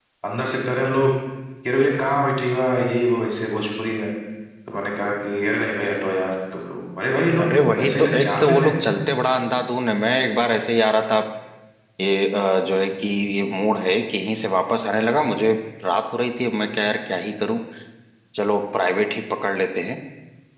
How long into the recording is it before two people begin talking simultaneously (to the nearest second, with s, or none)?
7 s